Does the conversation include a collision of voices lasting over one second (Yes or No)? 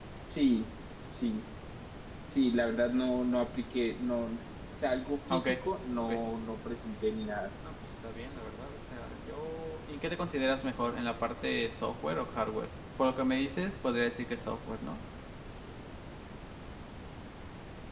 No